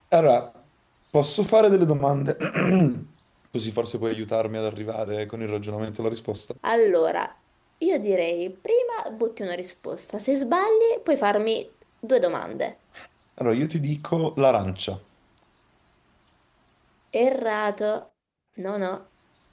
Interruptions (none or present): none